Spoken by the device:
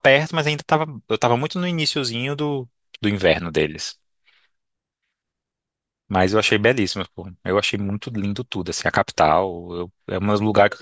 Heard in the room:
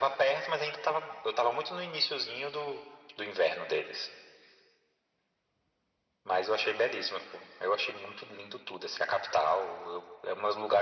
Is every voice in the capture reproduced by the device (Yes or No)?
Yes